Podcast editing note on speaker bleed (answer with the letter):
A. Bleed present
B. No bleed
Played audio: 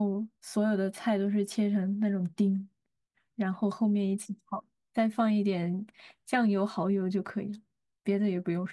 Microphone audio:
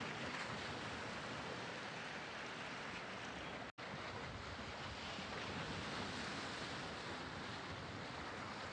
B